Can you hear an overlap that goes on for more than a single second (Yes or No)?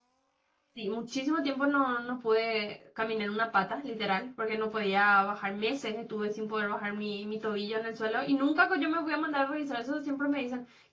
No